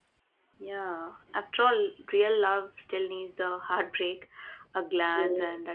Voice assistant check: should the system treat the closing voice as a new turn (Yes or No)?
No